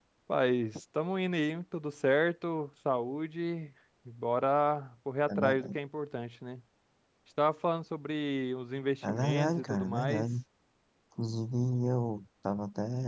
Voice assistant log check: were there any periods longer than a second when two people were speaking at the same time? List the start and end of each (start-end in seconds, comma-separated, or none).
9.0-10.3